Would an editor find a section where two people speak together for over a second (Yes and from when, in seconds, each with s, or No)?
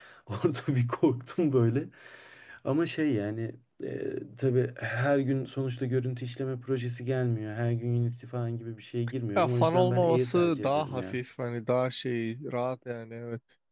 Yes, from 9.4 s